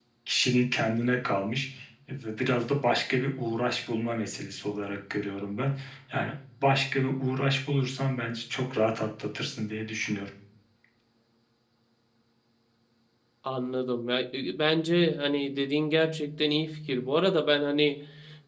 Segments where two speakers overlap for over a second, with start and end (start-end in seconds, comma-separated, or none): none